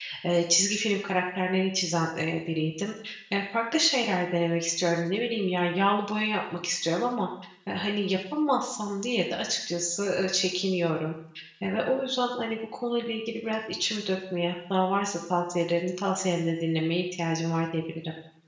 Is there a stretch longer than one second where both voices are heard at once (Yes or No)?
No